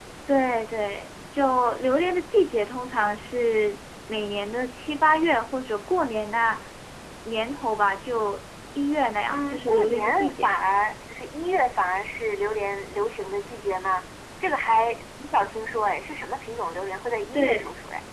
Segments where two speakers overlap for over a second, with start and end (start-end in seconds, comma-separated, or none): 9.3-10.5